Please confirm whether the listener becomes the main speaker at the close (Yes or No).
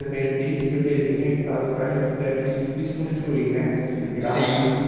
Yes